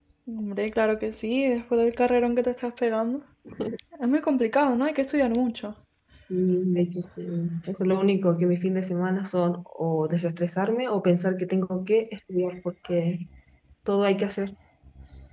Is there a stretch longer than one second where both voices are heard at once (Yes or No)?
No